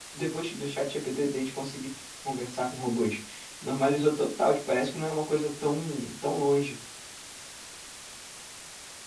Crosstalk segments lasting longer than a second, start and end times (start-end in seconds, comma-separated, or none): none